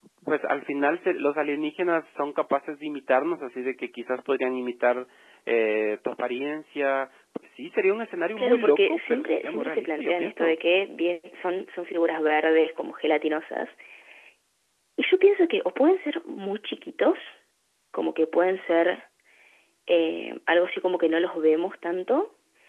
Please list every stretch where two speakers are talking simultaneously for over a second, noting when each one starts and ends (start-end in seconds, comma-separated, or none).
8.4-10.6